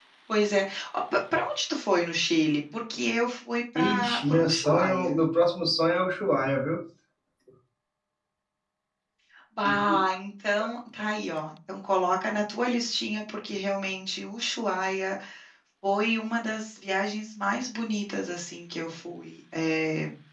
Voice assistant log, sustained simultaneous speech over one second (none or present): present